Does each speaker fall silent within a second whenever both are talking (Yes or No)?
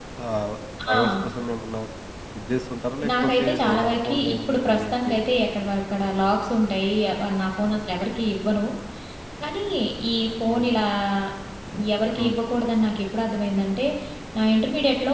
No